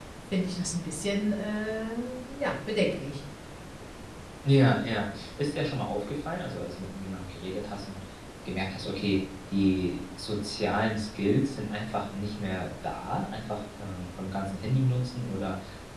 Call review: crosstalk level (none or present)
none